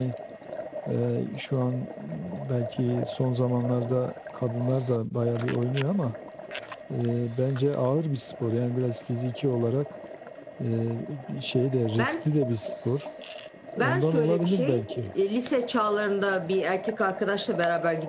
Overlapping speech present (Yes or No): Yes